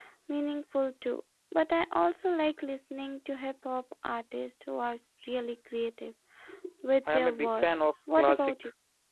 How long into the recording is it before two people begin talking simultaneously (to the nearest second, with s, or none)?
7 s